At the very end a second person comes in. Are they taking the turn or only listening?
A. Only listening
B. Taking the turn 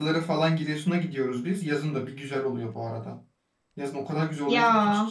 A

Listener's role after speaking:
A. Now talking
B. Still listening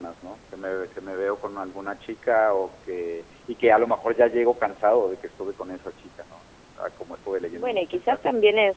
A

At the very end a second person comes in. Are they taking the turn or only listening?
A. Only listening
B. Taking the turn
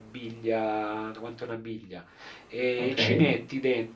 A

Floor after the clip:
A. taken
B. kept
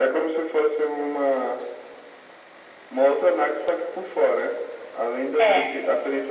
B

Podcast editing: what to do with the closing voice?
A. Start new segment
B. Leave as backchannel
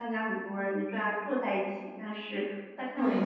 A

